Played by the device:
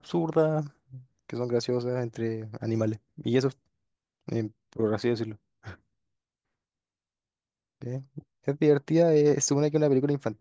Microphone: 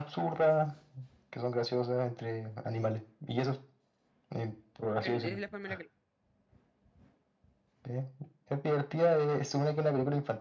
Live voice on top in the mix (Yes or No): No